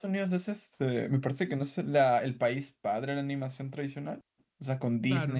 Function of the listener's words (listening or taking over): taking over